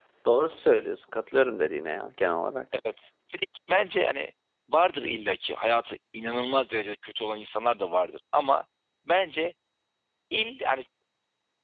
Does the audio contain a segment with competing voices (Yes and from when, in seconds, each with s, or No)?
No